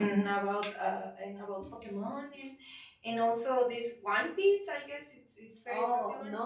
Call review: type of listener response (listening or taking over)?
taking over